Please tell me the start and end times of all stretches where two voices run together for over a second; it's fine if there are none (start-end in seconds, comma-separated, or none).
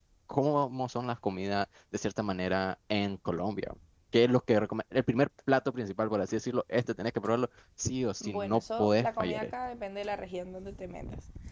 8.2-9.5